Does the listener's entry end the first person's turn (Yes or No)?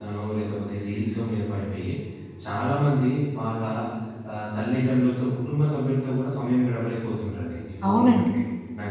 Yes